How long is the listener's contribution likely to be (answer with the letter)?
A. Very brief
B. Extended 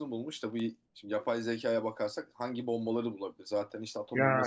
A